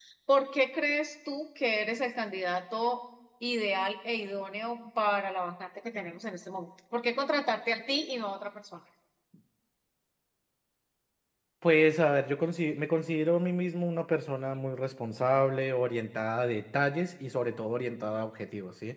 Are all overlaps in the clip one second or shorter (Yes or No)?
Yes